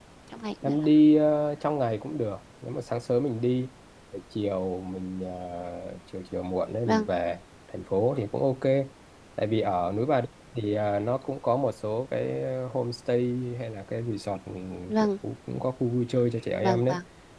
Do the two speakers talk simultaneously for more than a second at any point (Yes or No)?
No